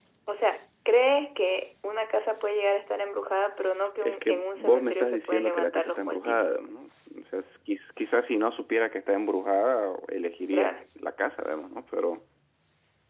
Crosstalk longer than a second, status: present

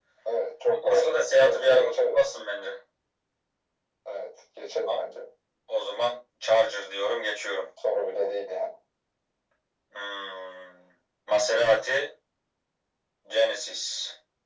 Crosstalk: present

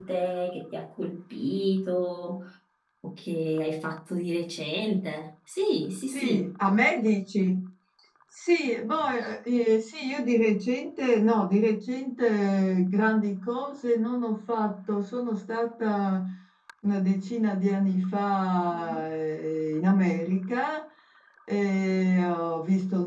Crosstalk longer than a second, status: none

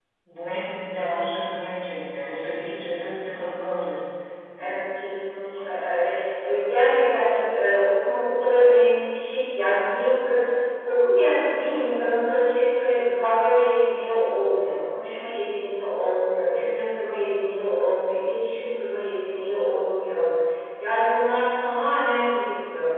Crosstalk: none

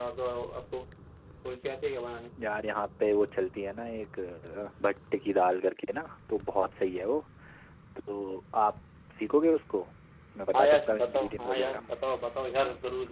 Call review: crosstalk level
present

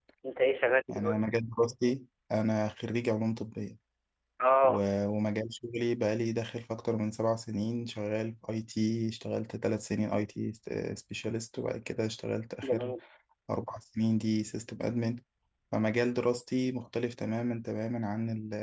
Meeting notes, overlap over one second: none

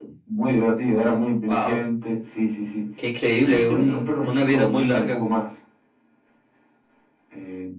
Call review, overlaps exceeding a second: present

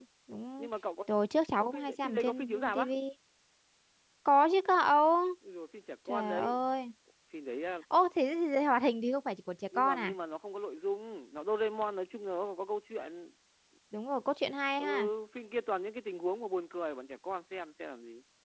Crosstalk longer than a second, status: present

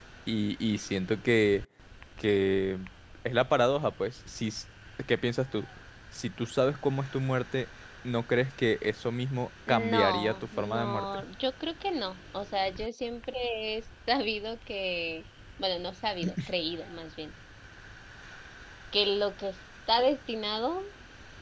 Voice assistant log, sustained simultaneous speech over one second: present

